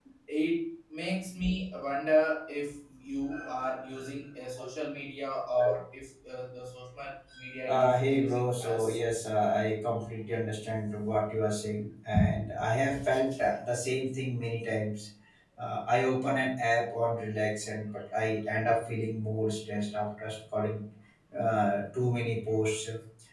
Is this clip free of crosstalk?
No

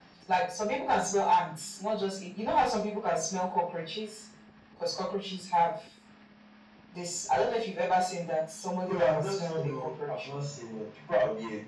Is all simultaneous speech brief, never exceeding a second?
No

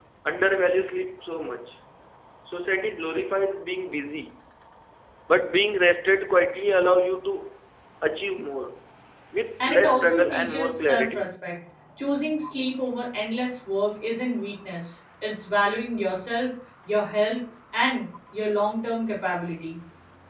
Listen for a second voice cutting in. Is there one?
Yes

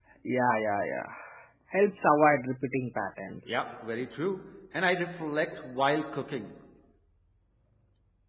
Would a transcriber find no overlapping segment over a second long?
Yes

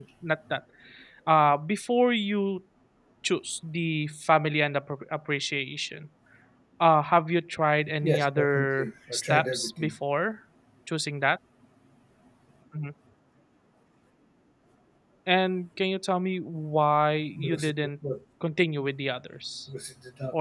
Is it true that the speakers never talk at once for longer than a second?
No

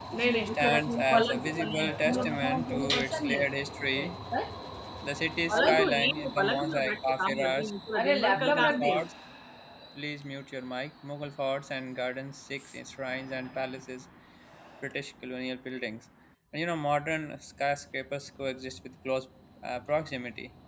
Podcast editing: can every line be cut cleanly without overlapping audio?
No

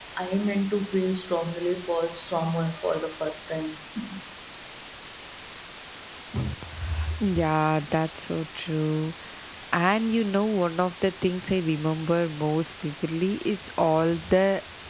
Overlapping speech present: No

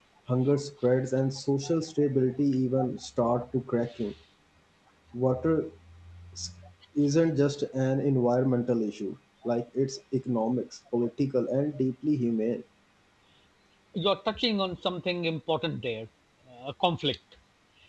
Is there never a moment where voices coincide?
Yes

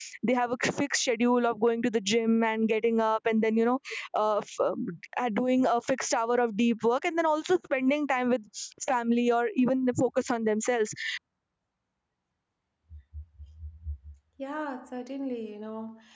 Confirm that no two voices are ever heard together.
Yes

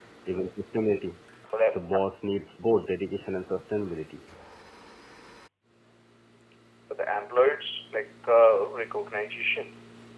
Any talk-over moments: No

